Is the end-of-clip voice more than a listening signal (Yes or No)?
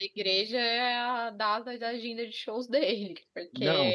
Yes